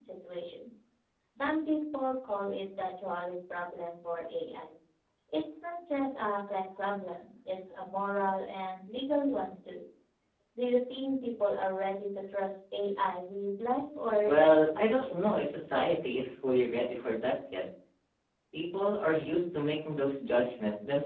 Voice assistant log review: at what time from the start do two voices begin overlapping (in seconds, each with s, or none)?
14.2 s